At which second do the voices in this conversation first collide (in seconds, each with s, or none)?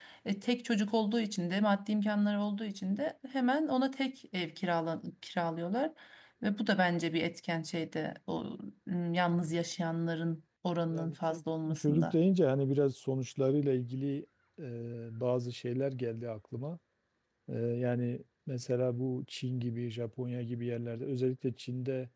10.9 s